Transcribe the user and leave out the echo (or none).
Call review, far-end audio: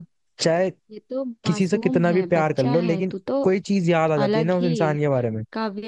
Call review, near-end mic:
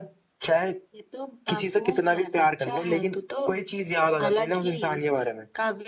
none